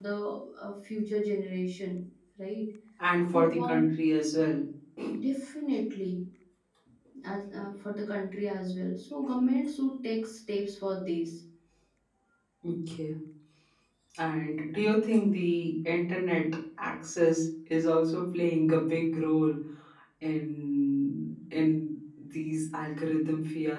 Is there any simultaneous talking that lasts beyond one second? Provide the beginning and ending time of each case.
none

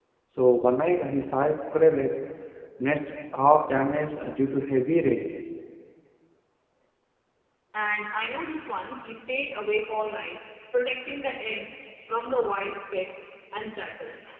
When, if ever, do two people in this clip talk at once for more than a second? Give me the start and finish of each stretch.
none

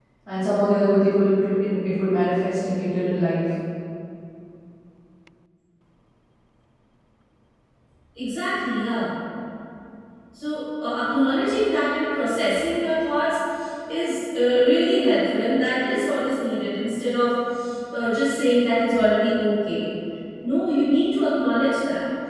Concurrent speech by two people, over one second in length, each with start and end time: none

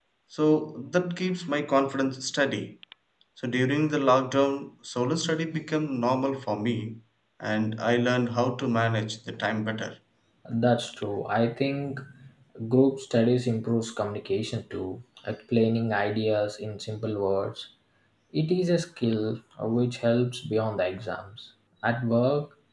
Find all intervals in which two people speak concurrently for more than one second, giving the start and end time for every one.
none

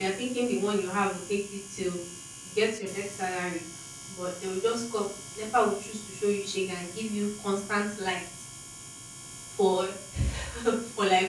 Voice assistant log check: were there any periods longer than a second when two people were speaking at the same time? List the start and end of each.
none

